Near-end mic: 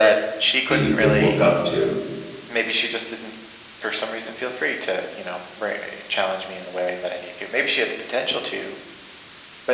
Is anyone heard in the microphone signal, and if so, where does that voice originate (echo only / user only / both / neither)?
both